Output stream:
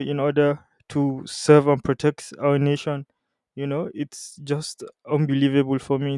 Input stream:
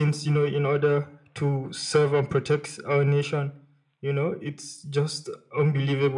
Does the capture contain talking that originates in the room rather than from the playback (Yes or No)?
No